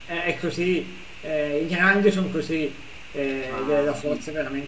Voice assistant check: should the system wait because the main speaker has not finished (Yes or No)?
Yes